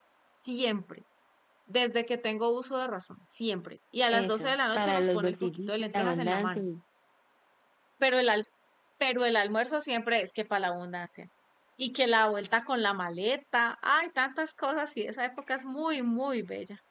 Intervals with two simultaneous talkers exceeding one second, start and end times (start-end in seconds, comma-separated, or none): 4.1-6.6